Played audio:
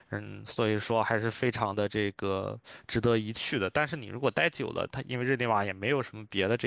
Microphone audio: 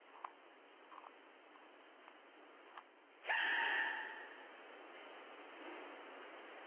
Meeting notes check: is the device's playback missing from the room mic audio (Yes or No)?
Yes